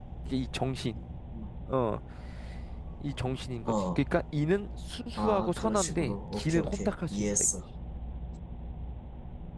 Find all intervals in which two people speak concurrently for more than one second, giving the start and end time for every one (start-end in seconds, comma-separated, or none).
5.2-7.5